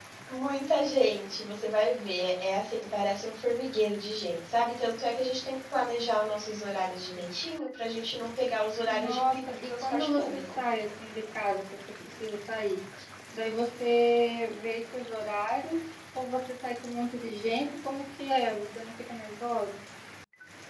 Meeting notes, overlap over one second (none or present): present